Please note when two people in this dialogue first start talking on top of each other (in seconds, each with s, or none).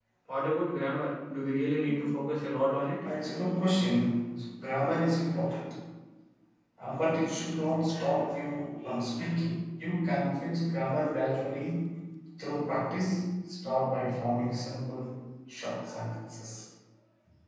none